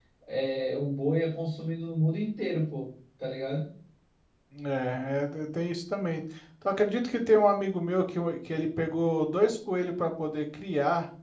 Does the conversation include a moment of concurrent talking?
No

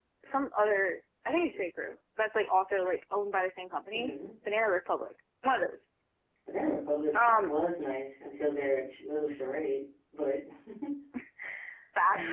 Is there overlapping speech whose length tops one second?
No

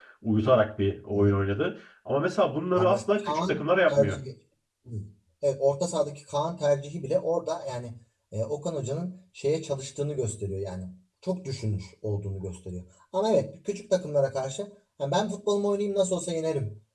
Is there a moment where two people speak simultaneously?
Yes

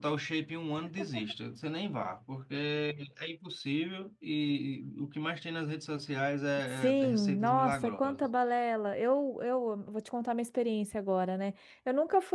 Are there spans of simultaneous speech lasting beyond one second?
Yes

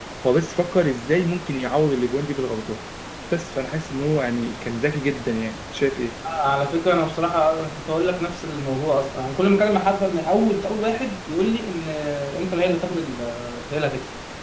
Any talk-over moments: No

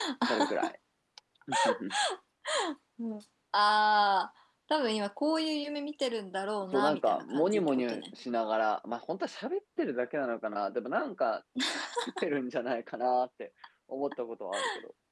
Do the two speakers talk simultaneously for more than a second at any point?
Yes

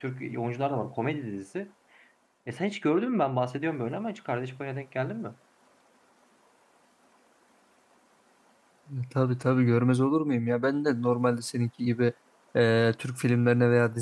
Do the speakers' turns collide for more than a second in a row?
No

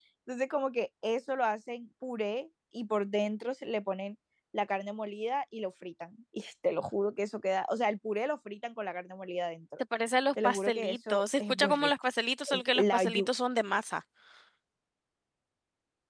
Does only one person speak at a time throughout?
No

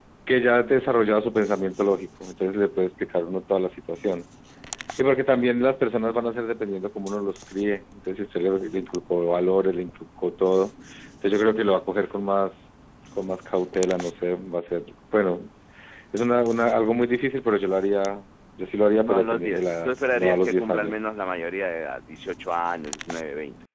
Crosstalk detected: Yes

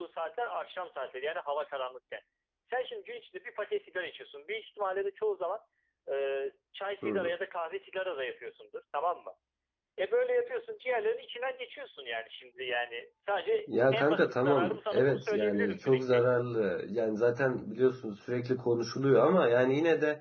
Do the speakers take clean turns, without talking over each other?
No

